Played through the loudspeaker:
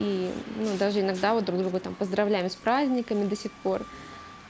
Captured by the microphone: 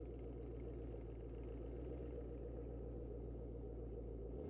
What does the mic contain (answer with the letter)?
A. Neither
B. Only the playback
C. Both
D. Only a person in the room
A